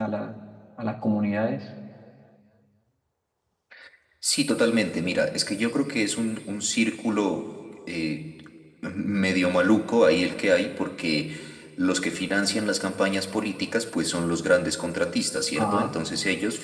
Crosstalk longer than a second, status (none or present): none